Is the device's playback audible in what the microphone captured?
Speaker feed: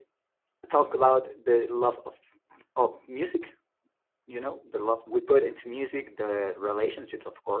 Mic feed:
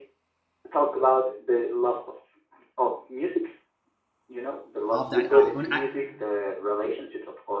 Yes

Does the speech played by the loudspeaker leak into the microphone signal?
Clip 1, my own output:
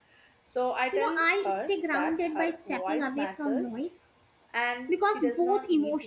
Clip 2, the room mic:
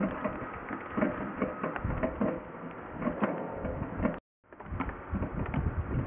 No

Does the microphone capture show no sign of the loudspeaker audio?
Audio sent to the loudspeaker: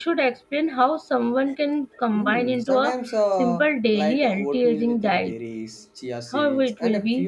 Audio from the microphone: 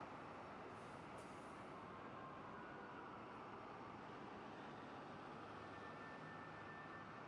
Yes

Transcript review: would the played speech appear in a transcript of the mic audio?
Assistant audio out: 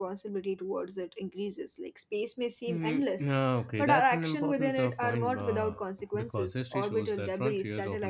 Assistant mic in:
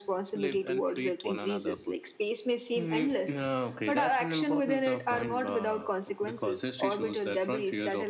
Yes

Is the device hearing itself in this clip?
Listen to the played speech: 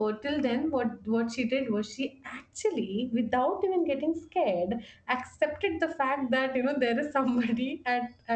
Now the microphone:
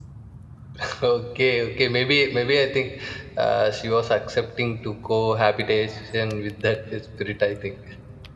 No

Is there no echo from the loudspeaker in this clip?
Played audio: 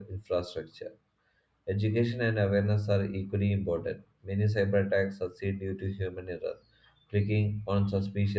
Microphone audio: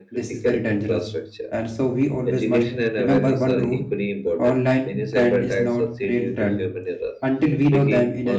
No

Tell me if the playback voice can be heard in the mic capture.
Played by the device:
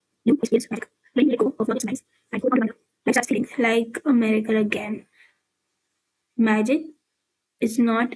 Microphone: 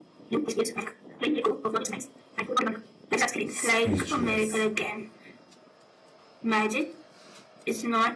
Yes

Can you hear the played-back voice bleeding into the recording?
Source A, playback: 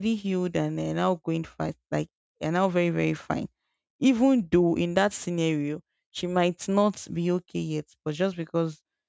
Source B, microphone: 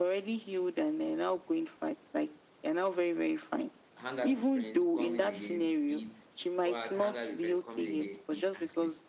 Yes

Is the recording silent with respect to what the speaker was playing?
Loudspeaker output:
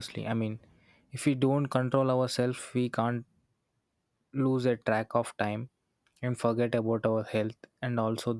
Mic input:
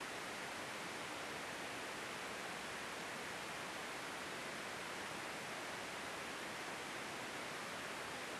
Yes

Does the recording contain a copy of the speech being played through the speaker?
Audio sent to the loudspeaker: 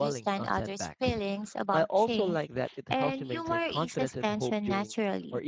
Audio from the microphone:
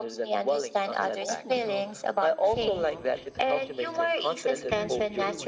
Yes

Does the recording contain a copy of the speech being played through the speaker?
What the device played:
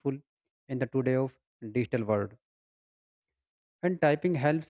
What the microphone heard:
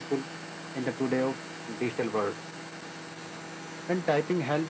Yes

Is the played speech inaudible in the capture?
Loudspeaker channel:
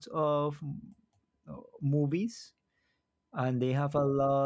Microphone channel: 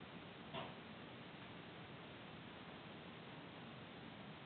Yes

